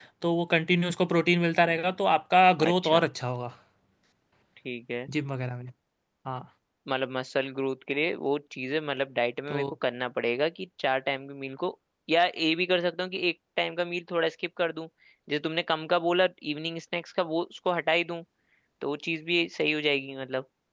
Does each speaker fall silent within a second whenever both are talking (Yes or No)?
Yes